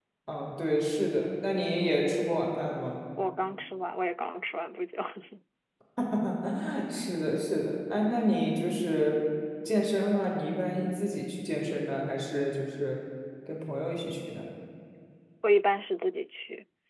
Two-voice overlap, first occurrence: none

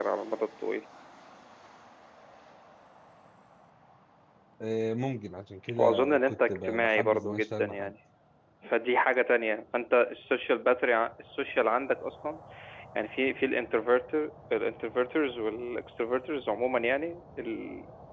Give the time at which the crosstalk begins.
6 s

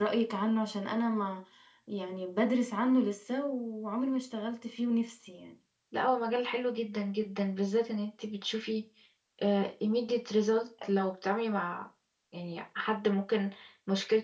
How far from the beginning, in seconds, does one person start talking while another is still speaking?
none

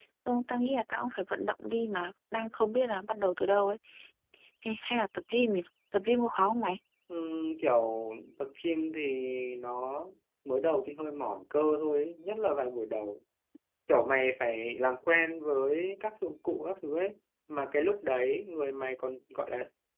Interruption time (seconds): none

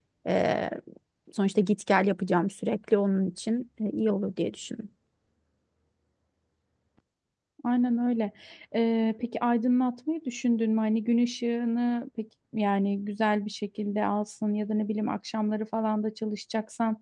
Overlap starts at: none

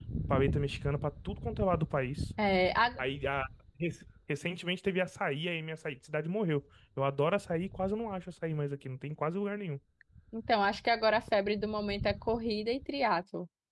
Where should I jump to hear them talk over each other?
none

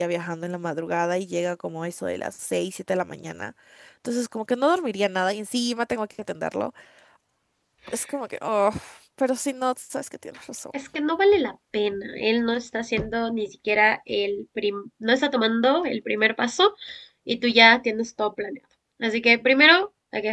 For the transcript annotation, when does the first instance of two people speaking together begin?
none

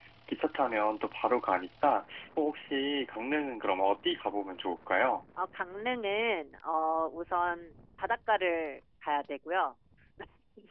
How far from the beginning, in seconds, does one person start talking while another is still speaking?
none

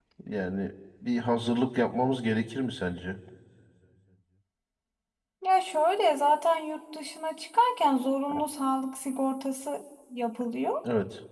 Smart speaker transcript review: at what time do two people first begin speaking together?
none

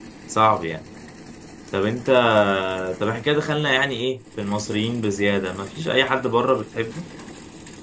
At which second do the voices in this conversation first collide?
none

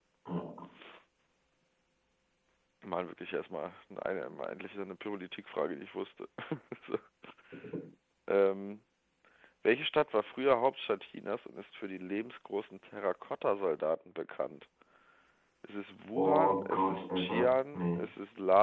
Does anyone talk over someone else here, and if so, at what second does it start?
16 s

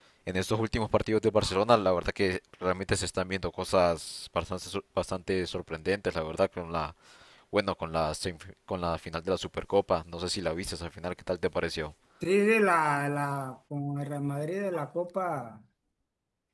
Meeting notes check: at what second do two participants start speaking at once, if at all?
none

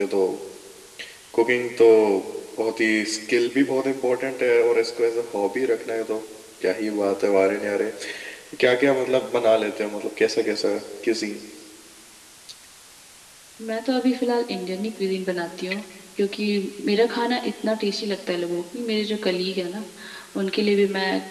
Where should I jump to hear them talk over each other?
none

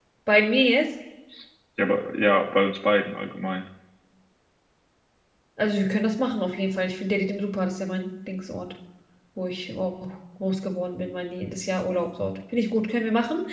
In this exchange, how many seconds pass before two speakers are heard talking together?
none

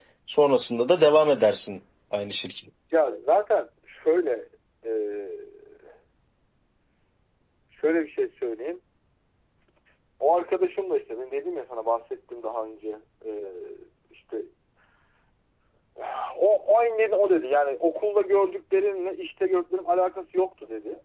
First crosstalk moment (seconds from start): none

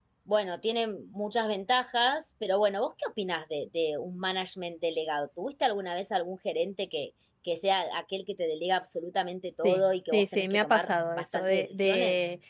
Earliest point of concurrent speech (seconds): 10 s

